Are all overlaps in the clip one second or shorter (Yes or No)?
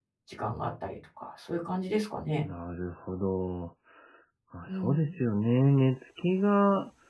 Yes